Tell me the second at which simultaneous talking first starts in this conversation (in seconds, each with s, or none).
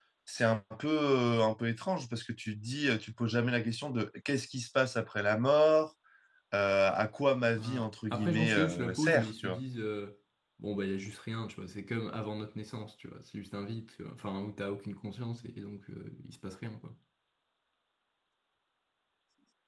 7.6 s